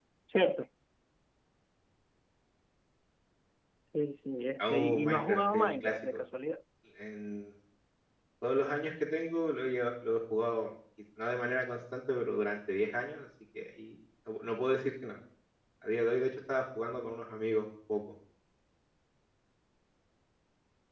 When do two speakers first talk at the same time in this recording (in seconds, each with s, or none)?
4.6 s